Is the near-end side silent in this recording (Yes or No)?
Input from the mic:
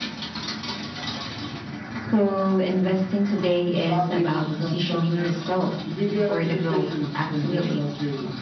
Yes